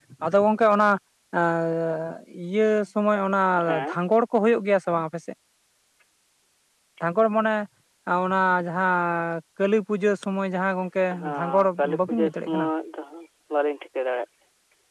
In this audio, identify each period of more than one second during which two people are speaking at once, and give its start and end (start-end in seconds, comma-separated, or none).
11.4-12.7